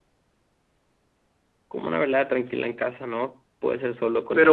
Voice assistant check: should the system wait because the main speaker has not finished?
No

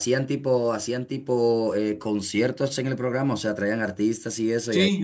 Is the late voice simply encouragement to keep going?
No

